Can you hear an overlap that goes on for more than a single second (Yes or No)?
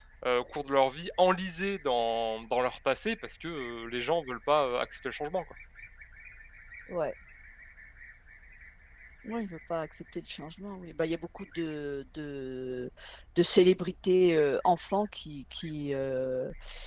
No